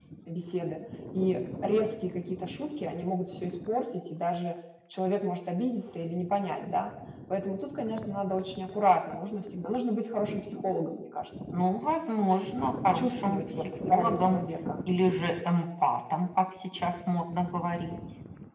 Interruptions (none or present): present